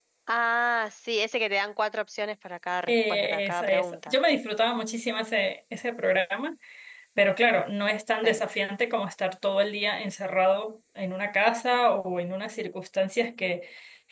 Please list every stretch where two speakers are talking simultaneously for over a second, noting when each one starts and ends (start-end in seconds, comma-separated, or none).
2.9-4.1